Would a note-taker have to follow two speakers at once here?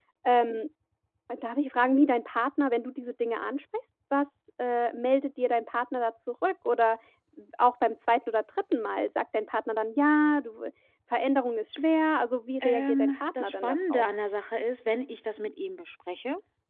Yes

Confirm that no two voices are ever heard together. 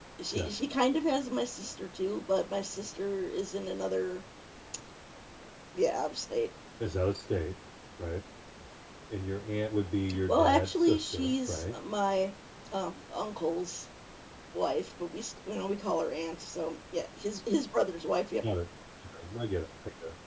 No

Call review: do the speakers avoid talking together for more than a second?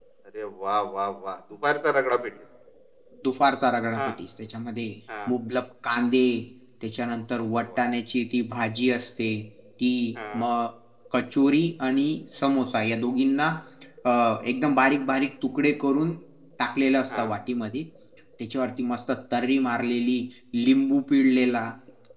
Yes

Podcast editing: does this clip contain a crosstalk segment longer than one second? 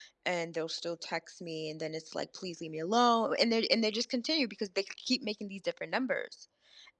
No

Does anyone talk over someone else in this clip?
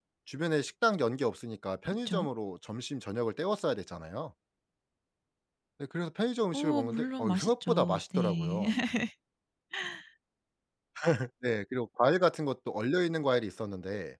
Yes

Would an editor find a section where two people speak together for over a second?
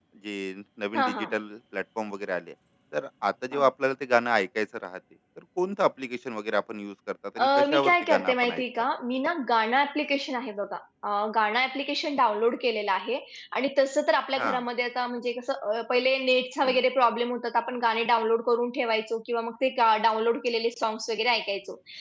Yes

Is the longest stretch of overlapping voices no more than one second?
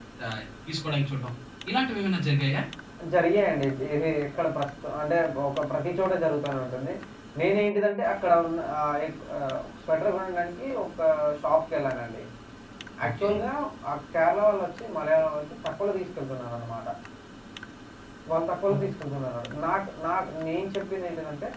Yes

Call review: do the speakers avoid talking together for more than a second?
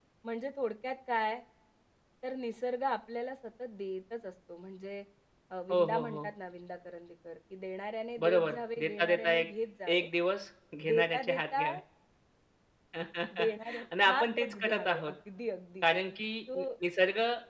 No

